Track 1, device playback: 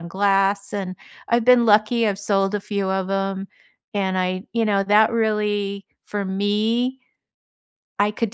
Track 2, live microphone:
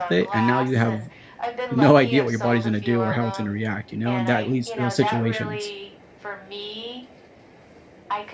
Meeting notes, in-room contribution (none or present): present